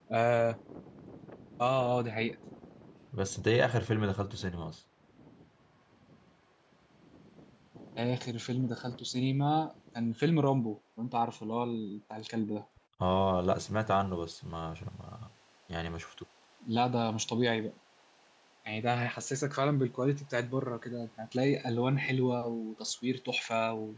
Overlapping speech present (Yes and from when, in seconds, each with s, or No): No